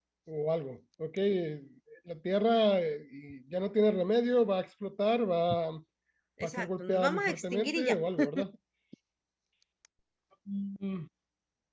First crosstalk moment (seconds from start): 6.5 s

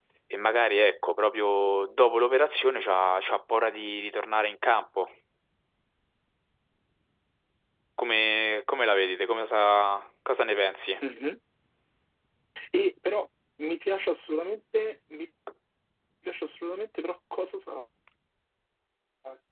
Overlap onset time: none

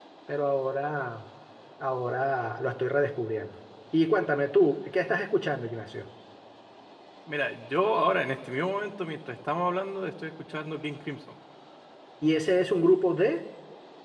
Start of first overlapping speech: none

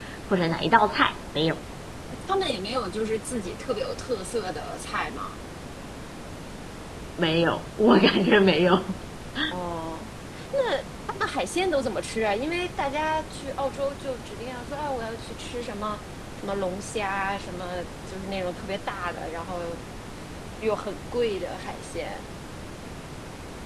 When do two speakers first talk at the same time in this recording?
none

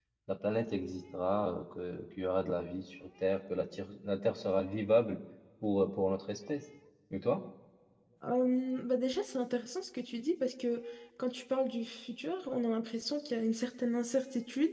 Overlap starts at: none

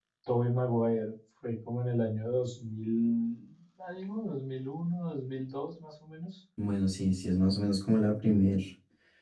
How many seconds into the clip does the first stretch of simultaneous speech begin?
none

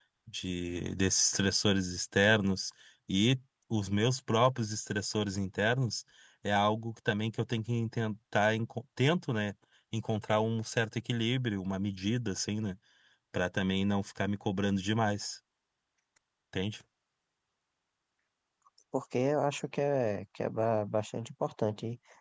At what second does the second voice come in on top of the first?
none

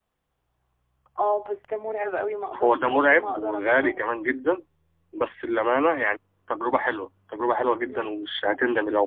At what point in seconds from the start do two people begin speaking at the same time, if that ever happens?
2.5 s

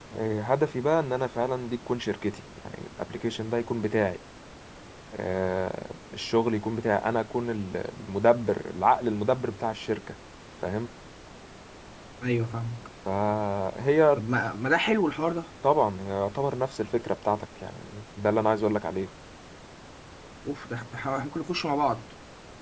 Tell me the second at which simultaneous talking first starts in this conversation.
none

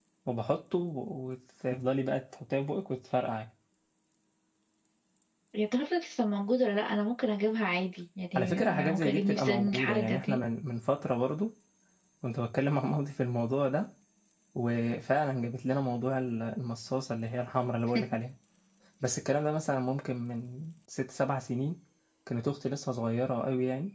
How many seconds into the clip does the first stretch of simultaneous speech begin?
8.3 s

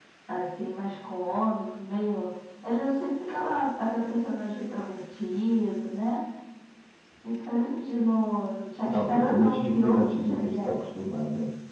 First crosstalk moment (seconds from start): 8.8 s

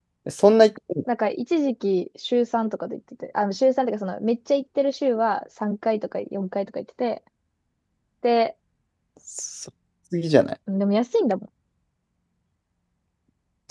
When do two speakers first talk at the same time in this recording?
none

